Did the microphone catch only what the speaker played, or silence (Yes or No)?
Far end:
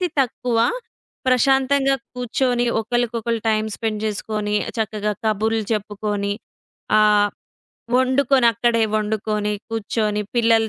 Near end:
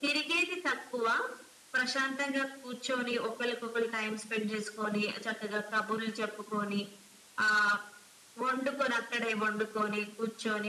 Yes